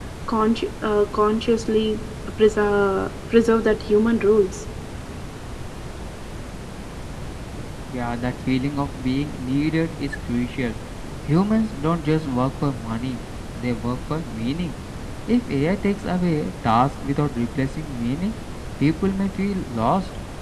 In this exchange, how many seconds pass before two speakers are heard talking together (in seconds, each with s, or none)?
none